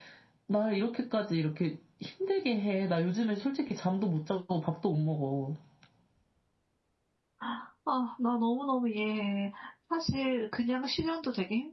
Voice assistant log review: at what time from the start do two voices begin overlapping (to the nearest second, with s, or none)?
none